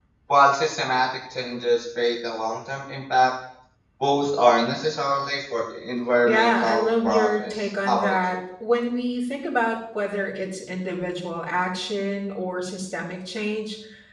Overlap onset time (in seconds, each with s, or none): 6.2 s